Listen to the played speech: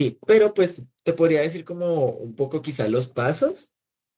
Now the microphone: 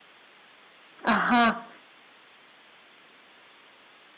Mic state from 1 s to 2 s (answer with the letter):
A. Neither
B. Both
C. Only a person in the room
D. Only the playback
C